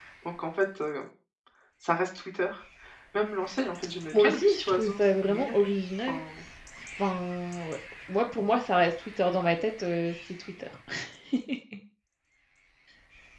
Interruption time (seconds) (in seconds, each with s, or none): 4.1 s